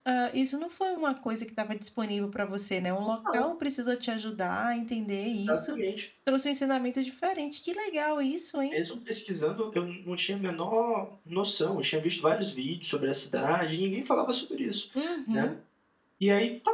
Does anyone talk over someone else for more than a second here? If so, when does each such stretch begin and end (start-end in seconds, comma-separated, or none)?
none